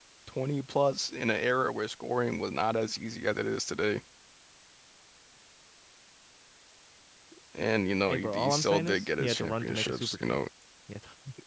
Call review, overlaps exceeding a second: present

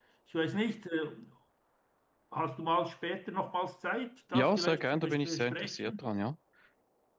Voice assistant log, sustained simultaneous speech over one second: present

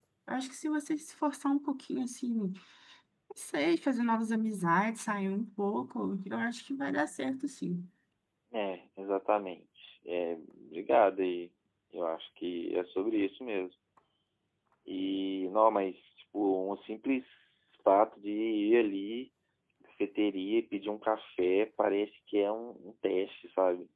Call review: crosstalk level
none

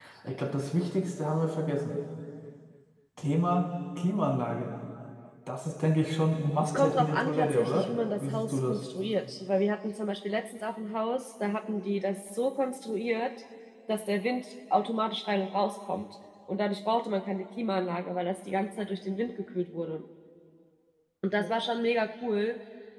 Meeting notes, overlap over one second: present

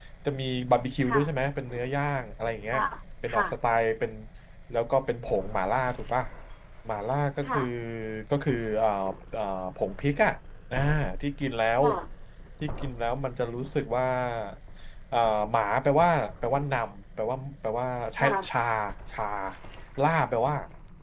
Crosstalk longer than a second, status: none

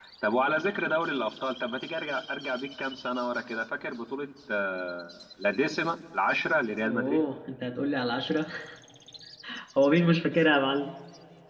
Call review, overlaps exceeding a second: none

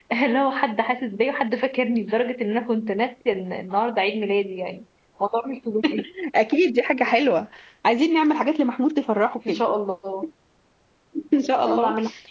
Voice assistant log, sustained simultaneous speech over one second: none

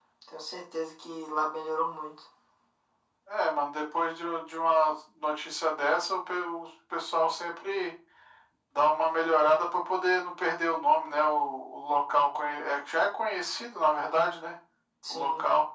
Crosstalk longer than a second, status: none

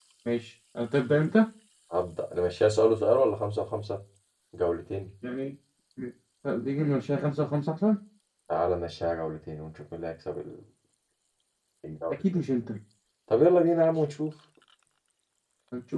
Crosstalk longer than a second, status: none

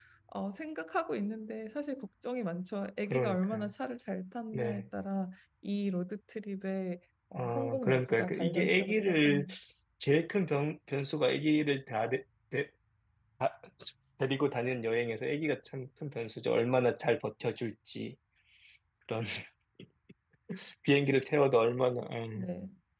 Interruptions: present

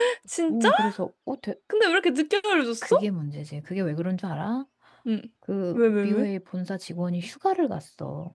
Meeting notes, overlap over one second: none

